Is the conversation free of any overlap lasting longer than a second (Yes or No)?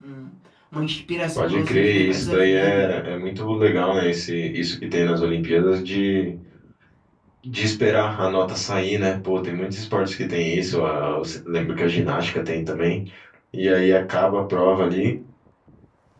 No